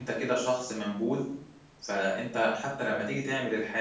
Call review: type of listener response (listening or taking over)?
listening